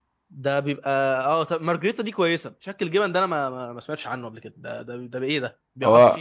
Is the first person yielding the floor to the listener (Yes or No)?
Yes